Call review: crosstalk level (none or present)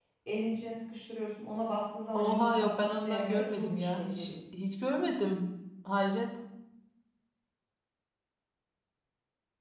present